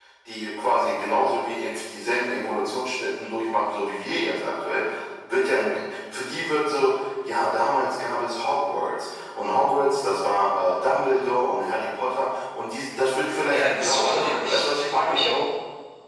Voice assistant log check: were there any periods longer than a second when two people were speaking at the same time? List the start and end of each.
13.5-15.2

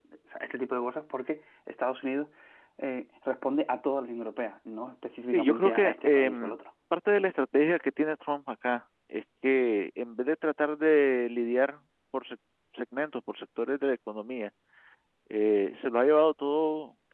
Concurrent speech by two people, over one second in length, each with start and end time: 5.3-6.6

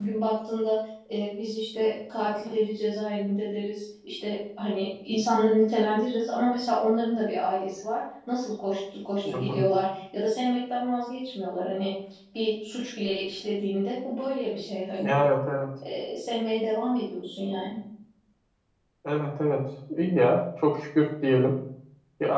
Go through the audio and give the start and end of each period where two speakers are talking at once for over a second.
none

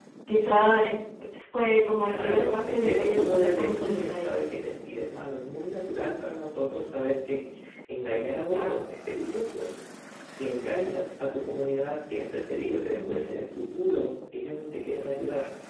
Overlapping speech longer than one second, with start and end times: 2.0-4.3

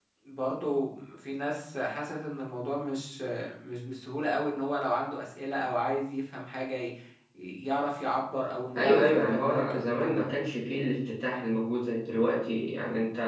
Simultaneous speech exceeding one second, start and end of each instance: 8.8-10.3

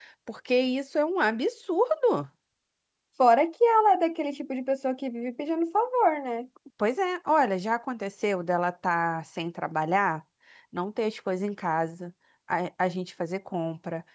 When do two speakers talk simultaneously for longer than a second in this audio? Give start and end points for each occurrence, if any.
none

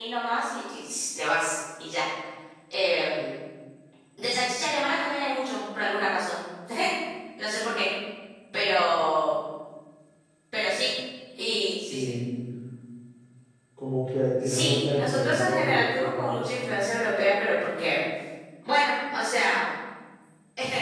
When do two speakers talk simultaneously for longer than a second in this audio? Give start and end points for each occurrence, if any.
14.4-16.4

